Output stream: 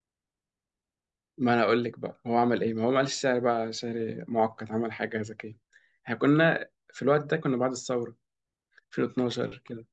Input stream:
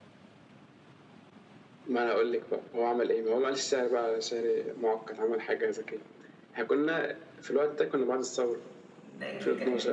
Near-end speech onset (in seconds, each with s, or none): 9.0 s